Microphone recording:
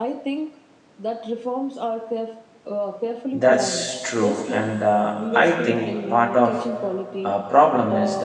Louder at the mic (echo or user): user